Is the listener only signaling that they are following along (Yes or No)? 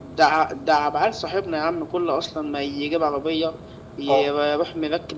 Yes